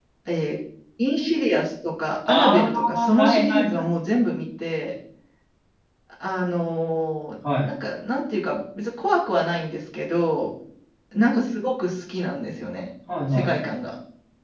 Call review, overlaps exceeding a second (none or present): present